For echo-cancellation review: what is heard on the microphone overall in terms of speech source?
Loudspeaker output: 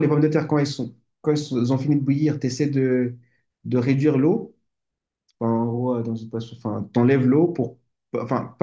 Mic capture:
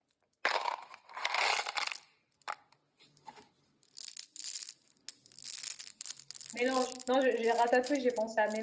user only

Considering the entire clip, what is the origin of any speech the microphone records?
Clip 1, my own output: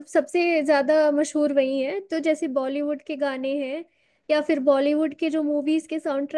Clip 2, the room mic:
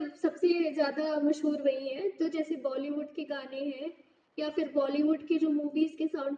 echo only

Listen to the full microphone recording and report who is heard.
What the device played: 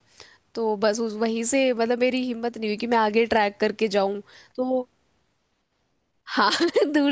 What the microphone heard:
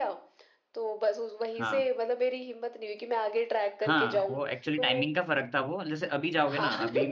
both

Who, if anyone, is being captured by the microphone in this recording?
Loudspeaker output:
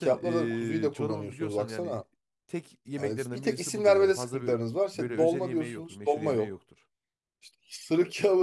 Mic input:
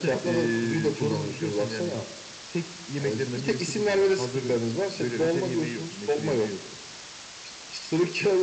echo only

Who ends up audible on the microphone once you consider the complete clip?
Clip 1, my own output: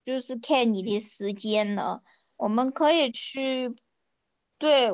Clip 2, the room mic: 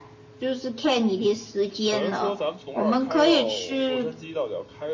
both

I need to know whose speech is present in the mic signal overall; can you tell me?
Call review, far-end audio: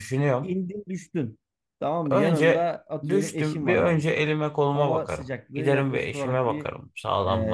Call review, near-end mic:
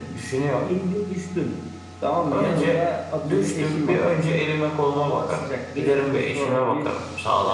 echo only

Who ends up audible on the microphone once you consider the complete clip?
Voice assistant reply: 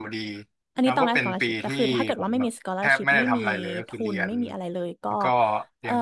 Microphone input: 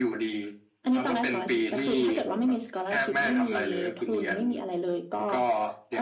echo only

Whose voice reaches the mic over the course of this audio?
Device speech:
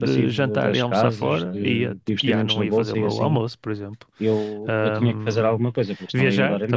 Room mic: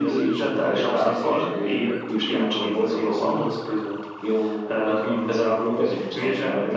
echo only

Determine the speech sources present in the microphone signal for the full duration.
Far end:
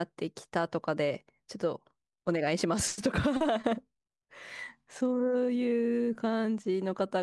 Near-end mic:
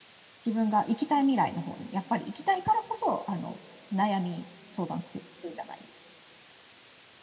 user only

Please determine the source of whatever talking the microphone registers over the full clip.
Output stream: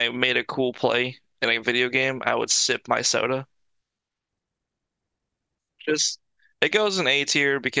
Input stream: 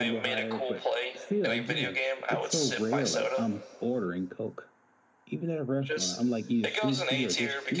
both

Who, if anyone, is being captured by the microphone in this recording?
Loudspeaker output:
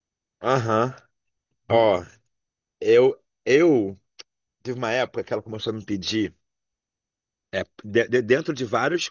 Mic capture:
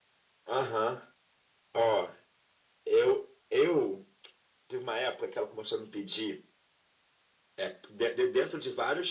echo only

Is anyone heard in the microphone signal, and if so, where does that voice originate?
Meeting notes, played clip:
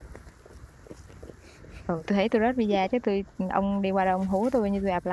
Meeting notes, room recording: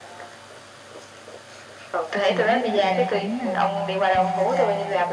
both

